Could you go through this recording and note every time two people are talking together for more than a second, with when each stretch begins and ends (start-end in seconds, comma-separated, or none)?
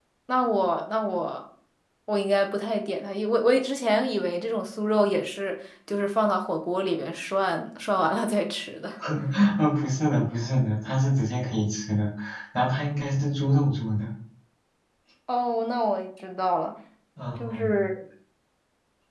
none